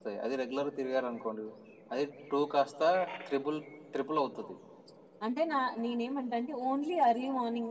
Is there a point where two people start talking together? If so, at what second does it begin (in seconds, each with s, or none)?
none